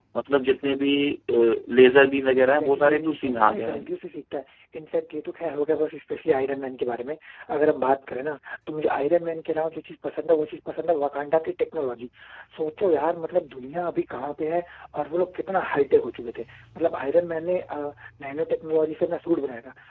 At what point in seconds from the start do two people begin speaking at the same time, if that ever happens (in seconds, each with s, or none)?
2.4 s